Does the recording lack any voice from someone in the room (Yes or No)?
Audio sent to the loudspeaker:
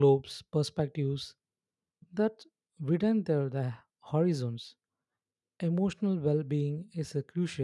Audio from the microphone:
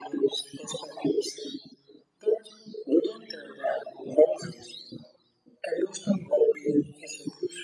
Yes